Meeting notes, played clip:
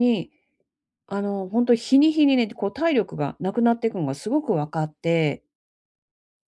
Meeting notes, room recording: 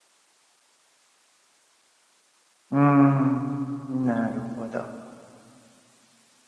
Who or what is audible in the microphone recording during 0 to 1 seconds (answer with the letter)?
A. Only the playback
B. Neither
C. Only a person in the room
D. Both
B